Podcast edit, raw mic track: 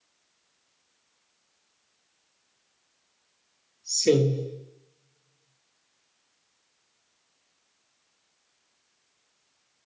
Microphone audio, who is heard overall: user only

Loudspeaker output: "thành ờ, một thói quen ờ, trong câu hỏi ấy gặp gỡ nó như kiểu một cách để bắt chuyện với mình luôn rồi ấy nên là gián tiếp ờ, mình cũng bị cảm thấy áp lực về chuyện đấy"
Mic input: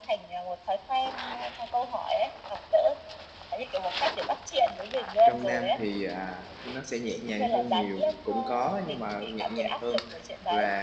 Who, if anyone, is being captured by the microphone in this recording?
both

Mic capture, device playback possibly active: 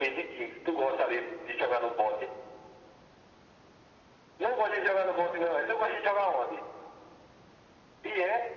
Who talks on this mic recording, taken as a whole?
echo only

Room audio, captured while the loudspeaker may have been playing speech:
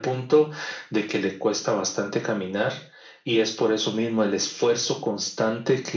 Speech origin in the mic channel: echo only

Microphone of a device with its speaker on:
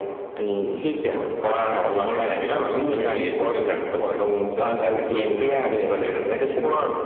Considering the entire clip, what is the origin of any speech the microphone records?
echo only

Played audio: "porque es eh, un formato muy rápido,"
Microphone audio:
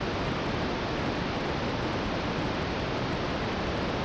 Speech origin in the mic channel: neither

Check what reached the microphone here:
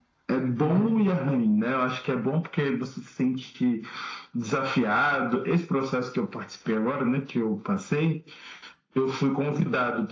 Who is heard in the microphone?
both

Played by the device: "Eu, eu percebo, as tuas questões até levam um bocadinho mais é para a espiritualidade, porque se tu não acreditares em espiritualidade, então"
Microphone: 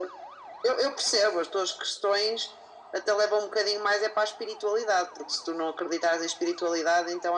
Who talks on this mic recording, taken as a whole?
echo only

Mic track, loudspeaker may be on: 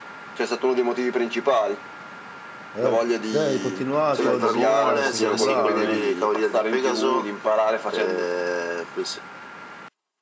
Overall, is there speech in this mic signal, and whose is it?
both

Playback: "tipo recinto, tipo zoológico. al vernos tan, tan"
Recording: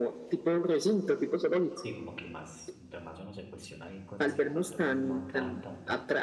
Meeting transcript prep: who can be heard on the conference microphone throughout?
both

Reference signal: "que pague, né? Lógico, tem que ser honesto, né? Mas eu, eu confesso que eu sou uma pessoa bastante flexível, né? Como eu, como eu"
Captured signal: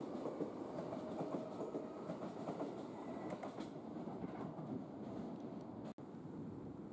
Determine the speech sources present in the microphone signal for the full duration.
neither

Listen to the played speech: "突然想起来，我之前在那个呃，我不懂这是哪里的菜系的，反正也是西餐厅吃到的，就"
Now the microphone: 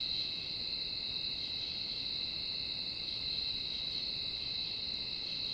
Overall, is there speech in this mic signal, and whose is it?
neither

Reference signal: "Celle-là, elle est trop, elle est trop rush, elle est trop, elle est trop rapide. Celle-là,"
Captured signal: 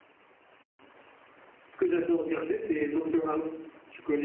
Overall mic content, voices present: user only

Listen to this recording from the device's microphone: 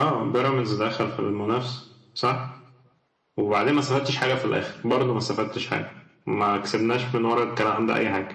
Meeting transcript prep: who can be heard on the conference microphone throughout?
echo only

